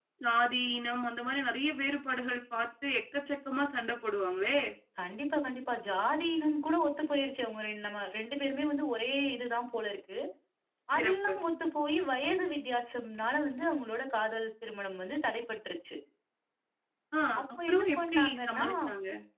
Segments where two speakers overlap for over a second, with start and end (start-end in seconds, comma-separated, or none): 17.4-18.6